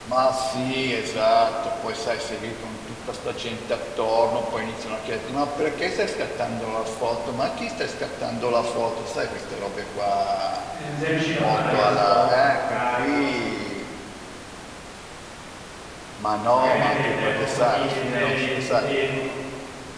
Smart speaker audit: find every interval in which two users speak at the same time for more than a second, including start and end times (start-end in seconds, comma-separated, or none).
11.4-13.2, 16.5-19.0